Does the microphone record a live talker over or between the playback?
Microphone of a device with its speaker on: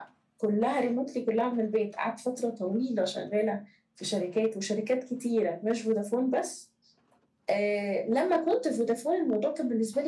No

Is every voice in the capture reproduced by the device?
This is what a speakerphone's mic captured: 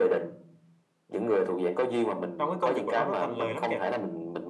No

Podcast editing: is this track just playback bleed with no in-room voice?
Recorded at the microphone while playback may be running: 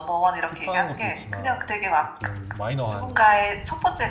No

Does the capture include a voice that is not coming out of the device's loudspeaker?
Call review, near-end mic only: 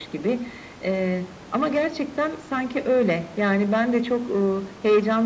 No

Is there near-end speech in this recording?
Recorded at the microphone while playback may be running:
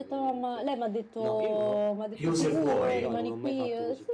Yes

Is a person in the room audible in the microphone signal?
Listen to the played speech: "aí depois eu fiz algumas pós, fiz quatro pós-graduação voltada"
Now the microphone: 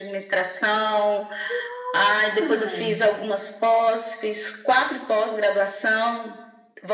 Yes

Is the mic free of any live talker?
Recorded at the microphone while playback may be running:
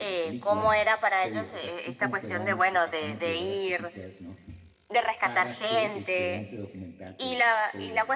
No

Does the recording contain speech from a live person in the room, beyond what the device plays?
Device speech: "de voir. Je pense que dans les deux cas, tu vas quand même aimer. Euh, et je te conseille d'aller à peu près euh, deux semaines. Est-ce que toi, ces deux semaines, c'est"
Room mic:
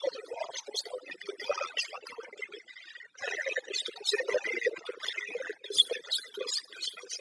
No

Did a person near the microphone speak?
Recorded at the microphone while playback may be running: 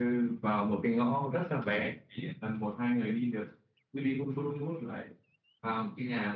No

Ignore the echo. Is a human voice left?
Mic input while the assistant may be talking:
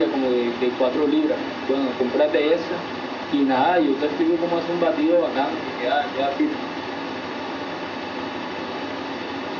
No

